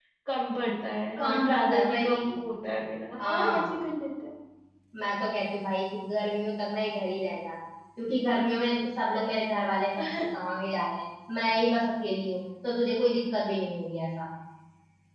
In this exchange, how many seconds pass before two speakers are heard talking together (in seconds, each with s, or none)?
1.2 s